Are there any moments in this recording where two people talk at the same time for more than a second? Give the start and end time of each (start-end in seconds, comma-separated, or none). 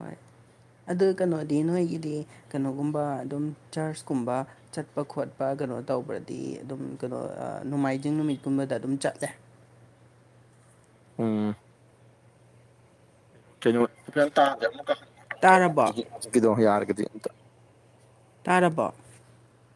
none